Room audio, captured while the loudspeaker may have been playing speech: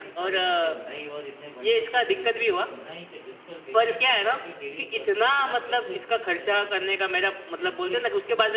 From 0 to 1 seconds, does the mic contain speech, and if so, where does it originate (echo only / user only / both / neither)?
both